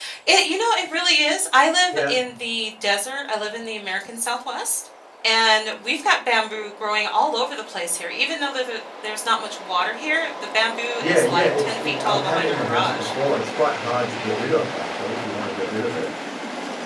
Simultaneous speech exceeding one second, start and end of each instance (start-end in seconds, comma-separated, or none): 11.0-13.1